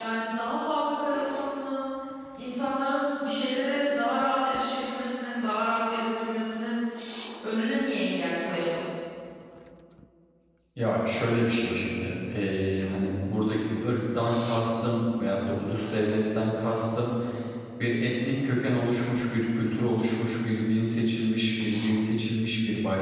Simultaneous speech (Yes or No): No